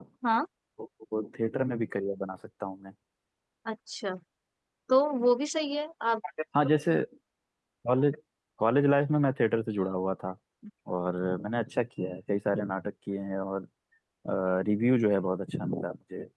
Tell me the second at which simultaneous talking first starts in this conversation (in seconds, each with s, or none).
none